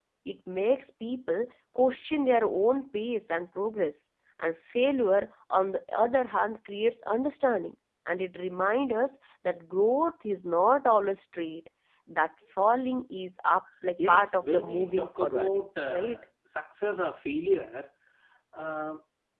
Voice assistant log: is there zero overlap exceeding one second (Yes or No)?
No